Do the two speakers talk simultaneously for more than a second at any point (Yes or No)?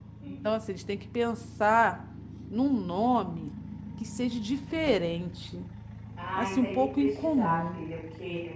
Yes